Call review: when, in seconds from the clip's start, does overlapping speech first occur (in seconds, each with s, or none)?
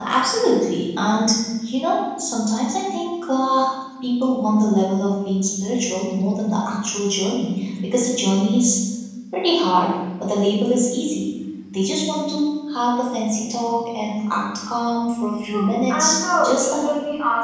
15.4 s